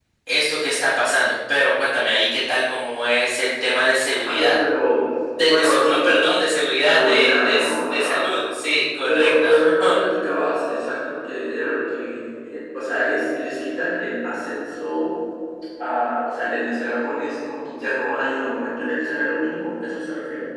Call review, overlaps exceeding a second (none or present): present